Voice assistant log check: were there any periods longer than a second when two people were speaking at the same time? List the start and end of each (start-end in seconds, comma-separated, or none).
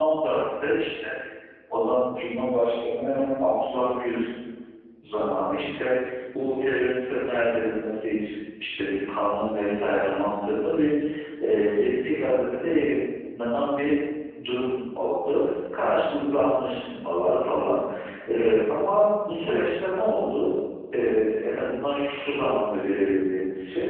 none